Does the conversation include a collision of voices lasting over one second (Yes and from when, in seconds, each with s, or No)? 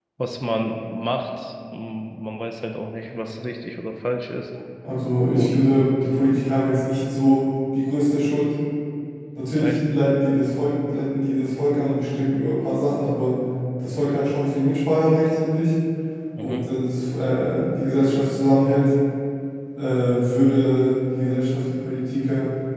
No